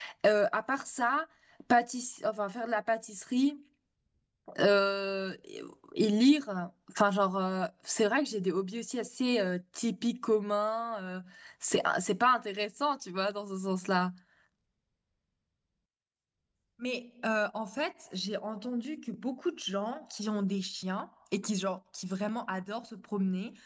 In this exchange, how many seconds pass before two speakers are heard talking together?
none

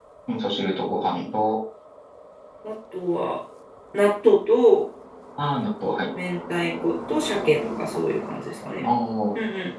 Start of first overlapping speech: none

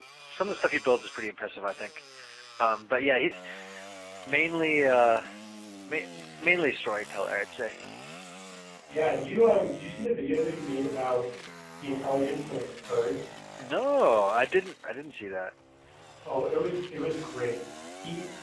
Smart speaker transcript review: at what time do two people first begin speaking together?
none

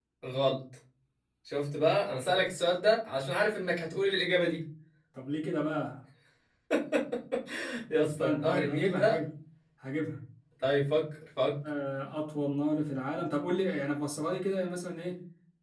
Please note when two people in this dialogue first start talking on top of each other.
8.0 s

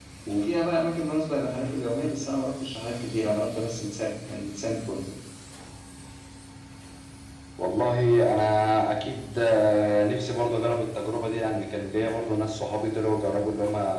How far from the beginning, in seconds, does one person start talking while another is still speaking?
none

